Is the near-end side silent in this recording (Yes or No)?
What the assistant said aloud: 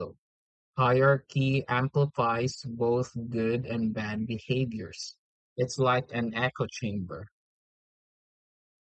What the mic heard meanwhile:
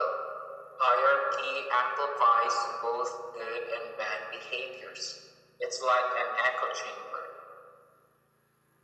Yes